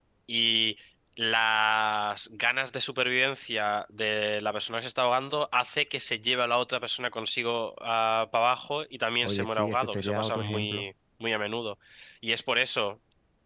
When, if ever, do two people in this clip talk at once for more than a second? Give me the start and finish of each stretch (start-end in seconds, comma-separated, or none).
9.2-10.8